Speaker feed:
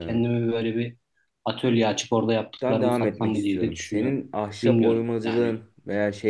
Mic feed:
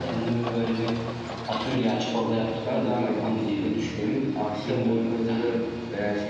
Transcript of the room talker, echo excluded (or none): none